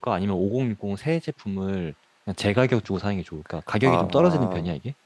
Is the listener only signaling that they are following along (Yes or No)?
No